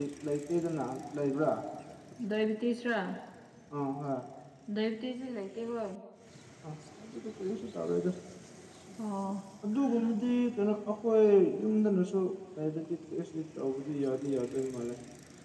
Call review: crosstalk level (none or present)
none